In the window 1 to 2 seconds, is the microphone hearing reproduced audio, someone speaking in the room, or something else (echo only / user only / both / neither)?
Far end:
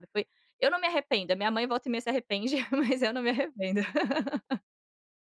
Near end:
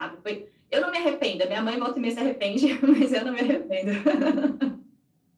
echo only